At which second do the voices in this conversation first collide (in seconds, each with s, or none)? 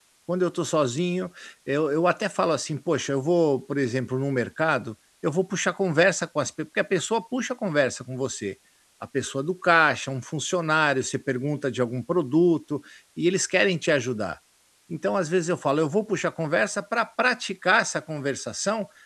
none